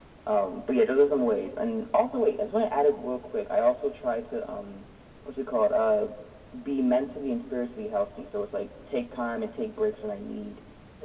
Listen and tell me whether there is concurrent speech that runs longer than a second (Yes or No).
No